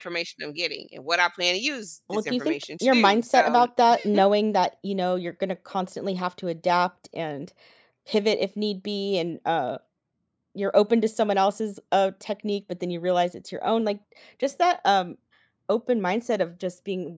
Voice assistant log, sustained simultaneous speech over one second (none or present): present